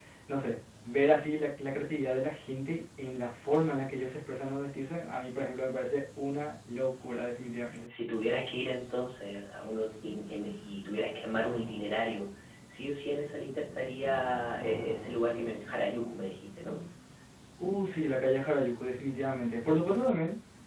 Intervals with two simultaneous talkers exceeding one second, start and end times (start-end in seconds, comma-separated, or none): none